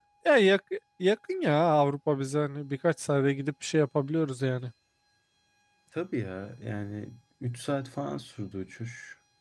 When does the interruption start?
none

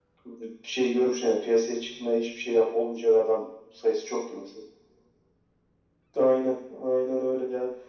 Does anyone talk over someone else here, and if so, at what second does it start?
none

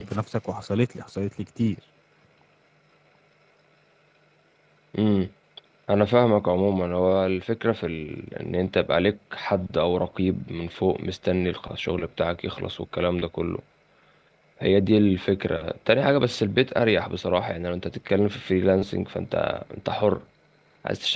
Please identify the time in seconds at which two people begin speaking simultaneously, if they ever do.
none

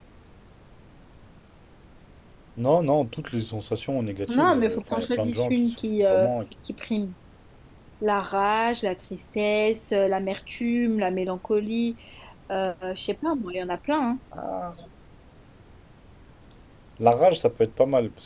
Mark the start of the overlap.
4 s

